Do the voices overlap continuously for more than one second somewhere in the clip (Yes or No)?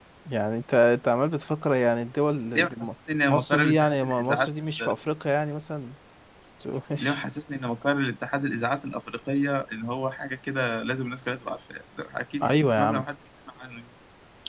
Yes